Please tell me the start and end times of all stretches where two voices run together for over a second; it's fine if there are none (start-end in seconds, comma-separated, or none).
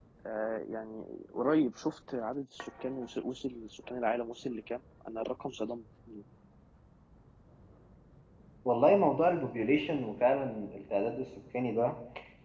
none